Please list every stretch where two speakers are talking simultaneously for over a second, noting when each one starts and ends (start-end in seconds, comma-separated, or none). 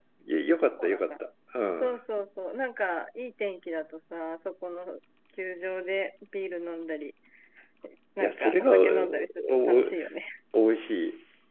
8.2-9.9